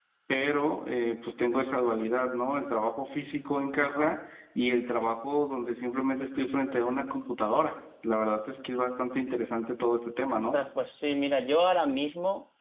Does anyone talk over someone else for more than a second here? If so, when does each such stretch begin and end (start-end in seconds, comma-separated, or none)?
none